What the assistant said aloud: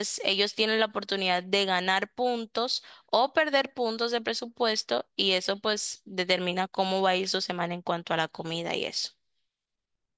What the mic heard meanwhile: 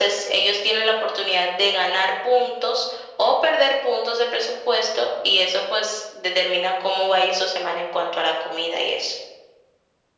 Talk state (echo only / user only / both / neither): echo only